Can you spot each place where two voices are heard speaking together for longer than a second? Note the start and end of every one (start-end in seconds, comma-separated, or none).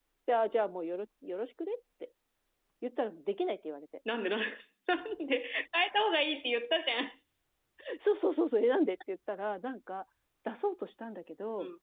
none